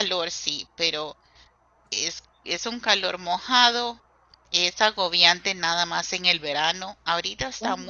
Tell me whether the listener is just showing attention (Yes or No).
Yes